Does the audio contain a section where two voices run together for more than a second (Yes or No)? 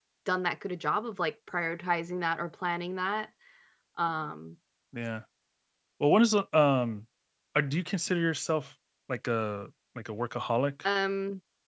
No